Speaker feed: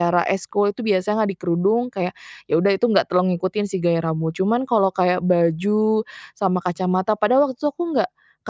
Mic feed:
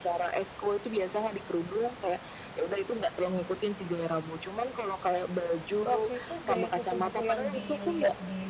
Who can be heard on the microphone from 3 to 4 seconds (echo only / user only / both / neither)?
echo only